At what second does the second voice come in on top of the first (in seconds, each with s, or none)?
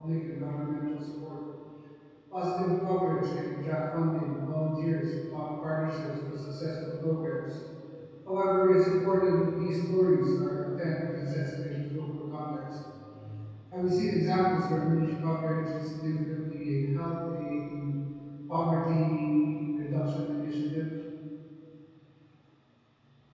none